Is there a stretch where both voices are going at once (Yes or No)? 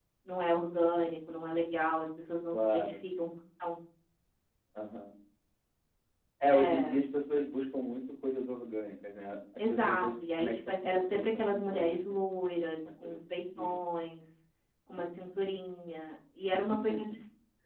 Yes